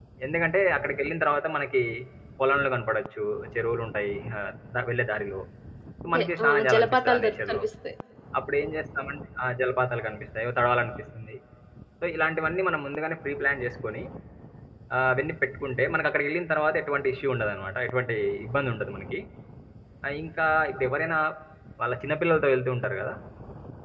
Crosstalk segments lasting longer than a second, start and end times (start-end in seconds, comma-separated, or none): 6.1-7.6